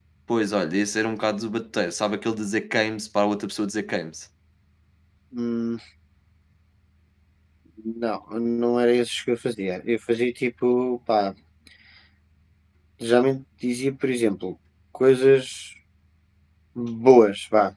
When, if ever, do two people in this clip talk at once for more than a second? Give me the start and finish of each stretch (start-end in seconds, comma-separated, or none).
none